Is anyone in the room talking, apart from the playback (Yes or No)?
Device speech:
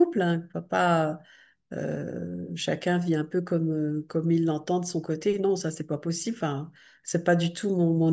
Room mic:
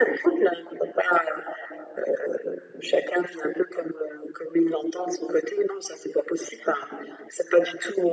No